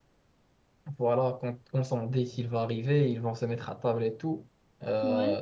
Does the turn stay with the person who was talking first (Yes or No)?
Yes